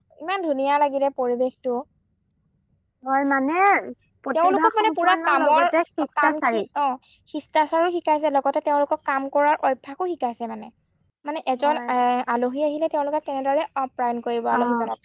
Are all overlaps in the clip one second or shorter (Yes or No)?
No